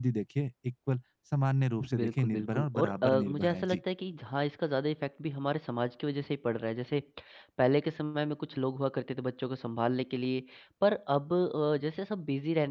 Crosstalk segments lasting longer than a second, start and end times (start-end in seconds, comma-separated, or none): 1.9-3.8